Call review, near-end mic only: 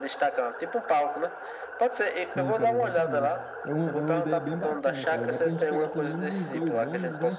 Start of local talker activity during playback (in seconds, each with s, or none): 2.2 s